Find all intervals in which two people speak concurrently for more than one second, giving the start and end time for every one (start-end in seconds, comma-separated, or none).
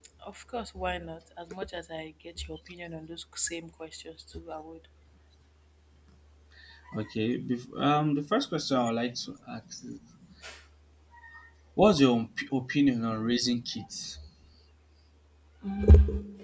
none